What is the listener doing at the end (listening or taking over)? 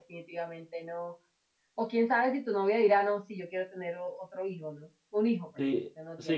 taking over